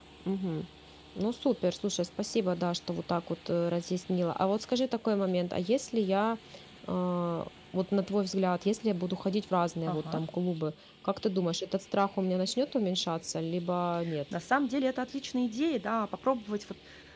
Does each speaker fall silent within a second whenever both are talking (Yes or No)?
Yes